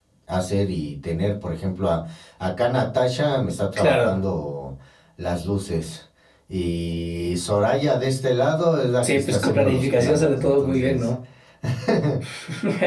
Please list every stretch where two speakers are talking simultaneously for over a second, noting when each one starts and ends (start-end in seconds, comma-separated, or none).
9.0-11.1